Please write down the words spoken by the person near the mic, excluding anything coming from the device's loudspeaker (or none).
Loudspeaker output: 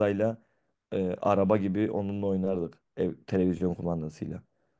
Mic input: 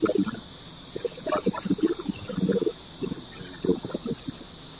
none